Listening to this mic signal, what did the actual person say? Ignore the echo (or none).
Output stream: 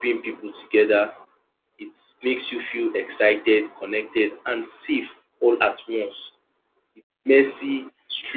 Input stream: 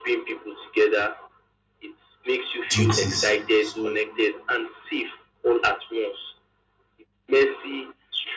duties. So,